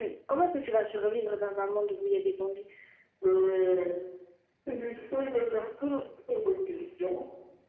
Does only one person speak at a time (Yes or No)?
Yes